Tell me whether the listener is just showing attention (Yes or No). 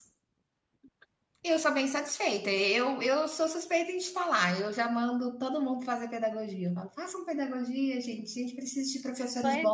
No